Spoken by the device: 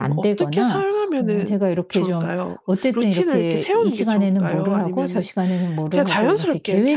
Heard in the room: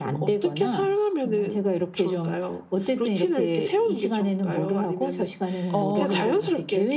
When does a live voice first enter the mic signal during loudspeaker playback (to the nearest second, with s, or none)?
6 s